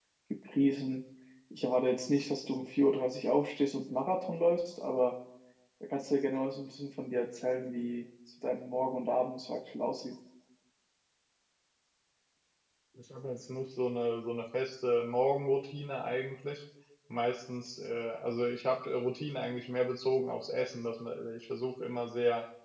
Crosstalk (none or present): none